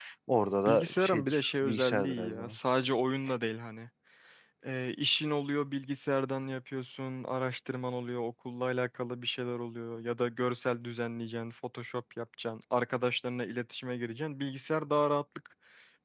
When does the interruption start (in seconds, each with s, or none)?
0.7 s